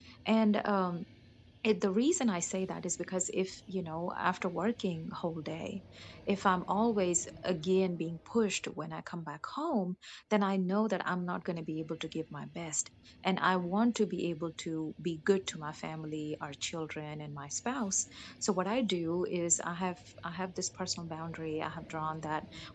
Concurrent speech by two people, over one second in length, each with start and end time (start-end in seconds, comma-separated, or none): none